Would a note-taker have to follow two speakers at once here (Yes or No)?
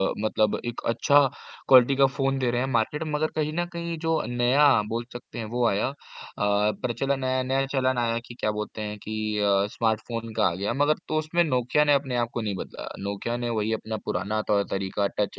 No